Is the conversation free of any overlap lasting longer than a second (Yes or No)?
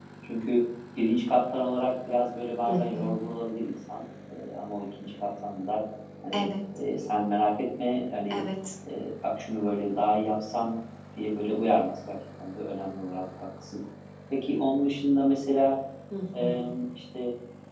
Yes